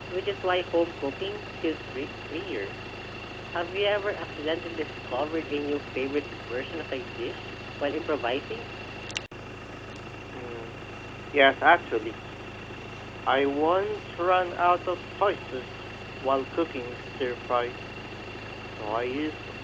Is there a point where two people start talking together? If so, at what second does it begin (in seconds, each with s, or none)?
none